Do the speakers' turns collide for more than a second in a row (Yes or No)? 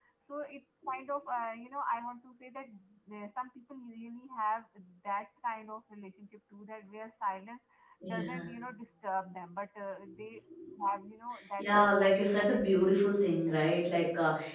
Yes